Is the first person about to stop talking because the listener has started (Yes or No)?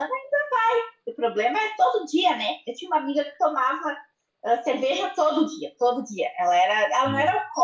No